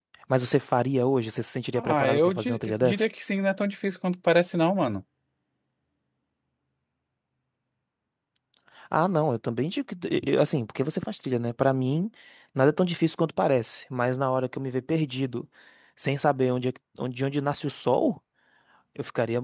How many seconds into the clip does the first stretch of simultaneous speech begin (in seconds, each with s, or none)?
1.7 s